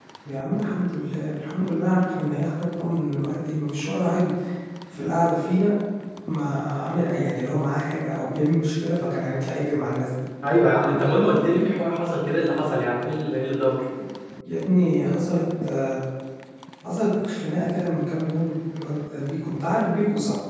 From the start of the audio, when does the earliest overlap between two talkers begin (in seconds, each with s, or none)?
none